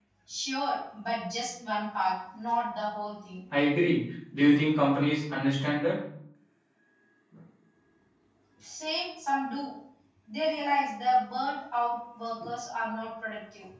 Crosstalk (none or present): none